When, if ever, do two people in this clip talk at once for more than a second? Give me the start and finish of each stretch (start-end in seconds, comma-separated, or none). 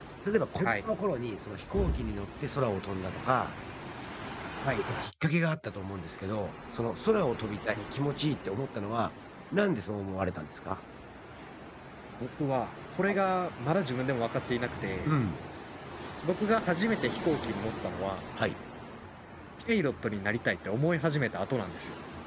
none